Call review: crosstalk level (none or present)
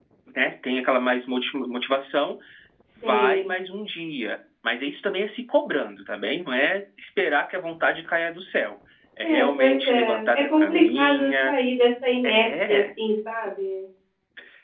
present